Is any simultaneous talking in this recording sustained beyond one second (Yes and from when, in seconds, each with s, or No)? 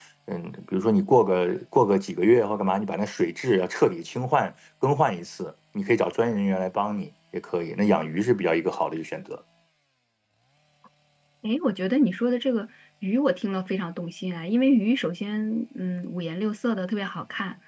No